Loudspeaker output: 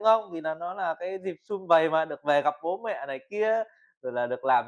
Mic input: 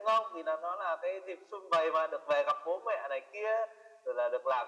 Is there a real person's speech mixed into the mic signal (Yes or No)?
No